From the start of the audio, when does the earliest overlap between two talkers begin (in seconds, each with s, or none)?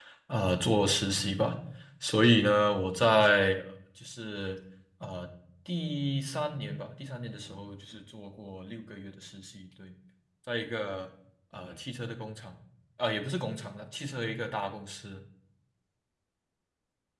none